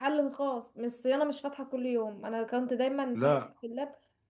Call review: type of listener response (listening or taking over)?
listening